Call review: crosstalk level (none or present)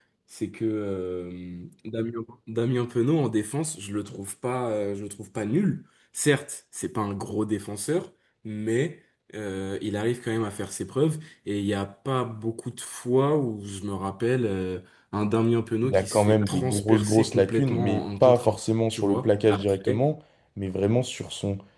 present